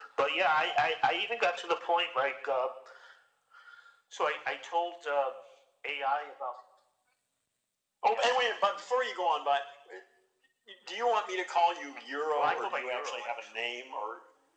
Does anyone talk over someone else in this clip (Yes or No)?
Yes